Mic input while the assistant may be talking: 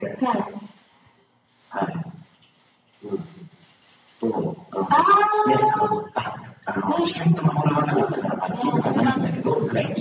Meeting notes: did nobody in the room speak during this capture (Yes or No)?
No